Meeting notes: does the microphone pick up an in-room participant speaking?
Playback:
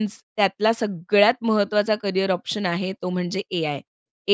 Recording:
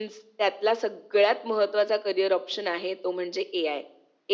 No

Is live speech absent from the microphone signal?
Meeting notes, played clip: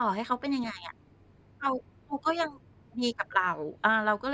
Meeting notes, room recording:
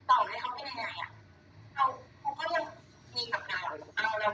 Yes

